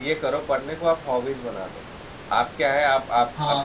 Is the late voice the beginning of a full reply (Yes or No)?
No